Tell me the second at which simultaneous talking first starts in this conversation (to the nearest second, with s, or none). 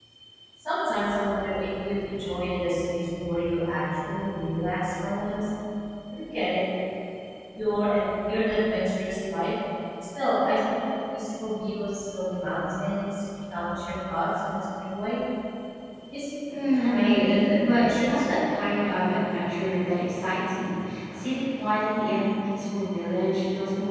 17 s